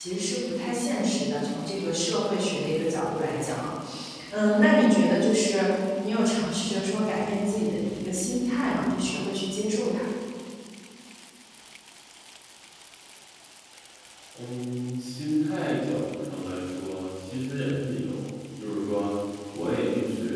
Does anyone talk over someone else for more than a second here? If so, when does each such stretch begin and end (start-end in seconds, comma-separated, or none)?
none